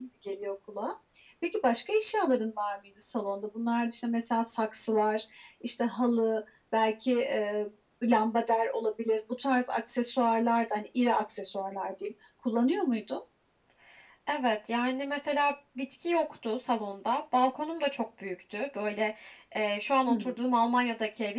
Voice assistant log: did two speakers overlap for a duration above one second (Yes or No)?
No